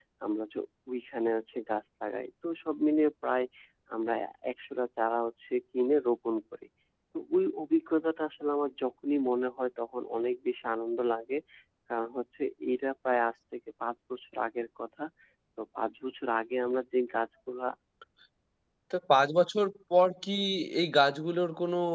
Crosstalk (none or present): none